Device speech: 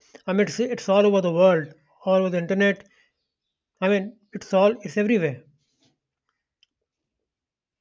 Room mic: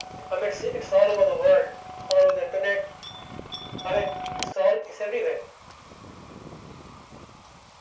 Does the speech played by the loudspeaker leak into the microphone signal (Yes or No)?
Yes